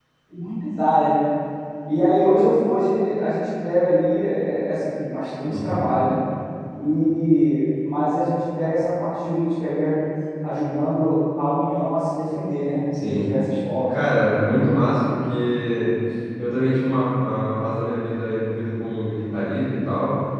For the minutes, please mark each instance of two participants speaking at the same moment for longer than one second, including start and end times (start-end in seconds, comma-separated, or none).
none